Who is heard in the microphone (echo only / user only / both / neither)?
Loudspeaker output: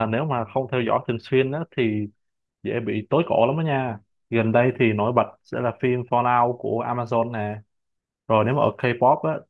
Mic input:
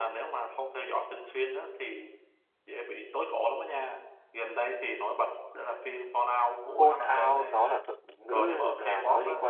both